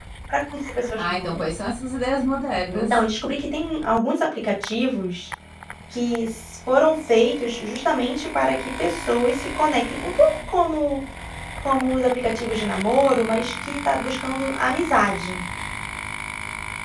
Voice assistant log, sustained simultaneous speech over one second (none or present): none